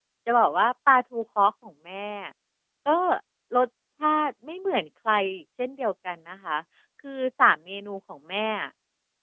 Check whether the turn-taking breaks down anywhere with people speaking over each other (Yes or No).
No